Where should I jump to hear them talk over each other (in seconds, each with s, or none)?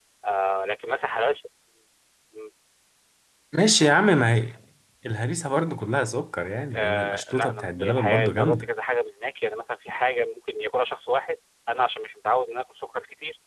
6.7 s